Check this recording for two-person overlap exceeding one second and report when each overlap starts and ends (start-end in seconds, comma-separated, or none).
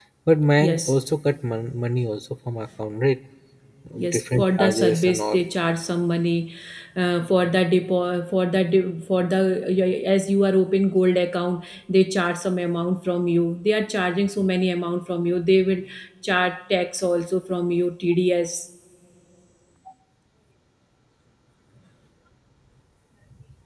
4.1-5.4